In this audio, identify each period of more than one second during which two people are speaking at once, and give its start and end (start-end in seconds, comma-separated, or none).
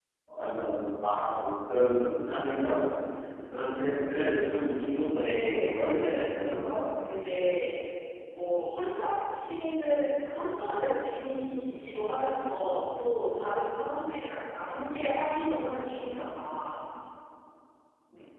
5.1-6.9